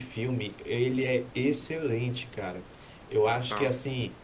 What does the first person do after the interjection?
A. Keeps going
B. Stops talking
A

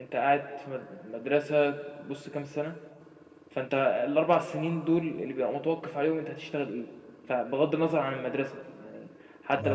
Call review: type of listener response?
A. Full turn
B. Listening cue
B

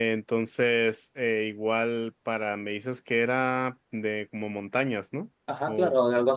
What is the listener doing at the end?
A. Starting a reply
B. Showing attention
A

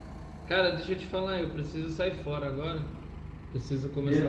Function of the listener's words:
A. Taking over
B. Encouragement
B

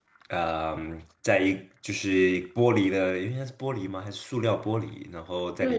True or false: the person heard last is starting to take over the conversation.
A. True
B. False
A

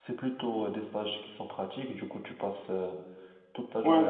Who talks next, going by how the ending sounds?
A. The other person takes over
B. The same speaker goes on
A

